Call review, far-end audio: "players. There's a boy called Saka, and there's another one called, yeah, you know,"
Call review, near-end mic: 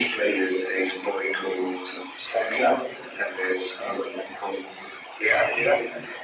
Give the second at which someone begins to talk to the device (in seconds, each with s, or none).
none